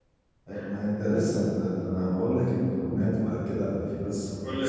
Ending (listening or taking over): listening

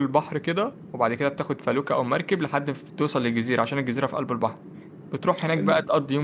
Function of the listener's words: listening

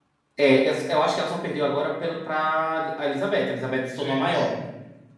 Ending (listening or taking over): listening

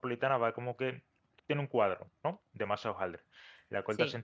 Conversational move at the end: listening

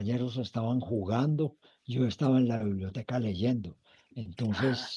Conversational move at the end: listening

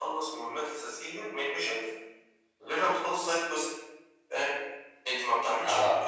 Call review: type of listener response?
listening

